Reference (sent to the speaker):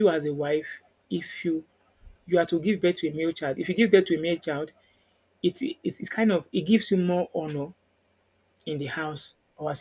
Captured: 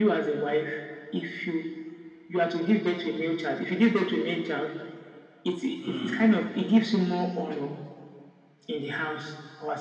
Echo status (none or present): present